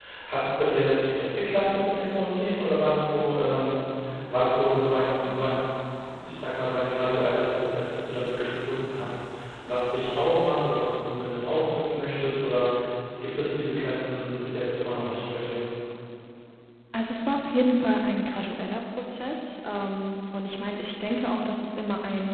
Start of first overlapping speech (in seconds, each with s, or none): none